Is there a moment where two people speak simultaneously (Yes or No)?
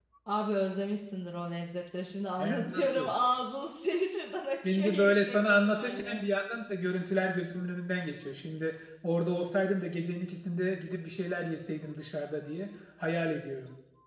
Yes